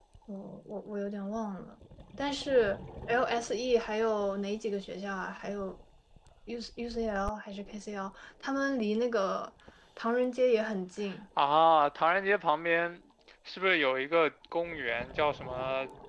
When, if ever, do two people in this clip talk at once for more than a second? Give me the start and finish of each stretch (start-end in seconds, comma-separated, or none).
none